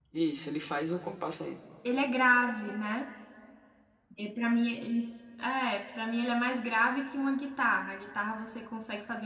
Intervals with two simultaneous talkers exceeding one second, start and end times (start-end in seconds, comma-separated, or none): none